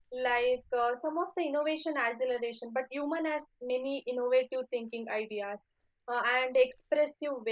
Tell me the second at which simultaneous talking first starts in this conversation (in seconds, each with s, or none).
none